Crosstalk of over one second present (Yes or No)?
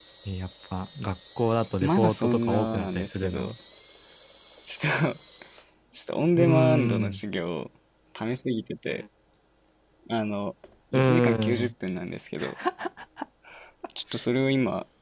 Yes